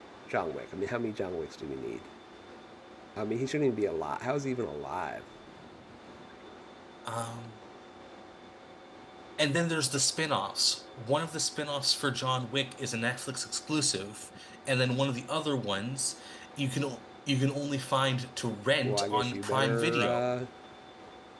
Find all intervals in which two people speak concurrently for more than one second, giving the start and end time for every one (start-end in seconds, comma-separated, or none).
18.8-20.4